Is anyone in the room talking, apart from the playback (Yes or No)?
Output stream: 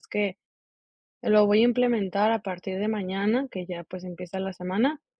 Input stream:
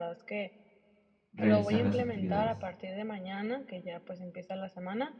Yes